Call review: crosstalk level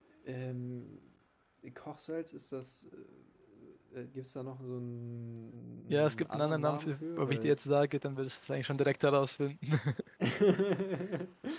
present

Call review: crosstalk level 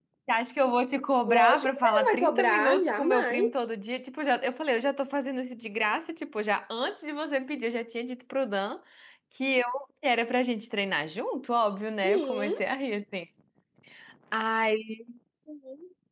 present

